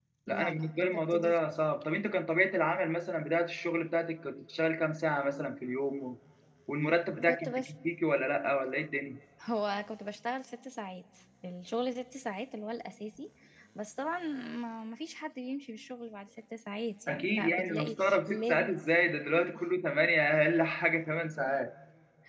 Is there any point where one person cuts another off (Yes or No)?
Yes